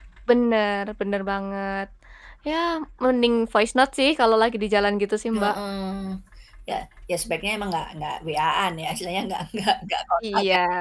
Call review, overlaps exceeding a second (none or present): none